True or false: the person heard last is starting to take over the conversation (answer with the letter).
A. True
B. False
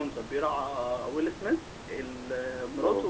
B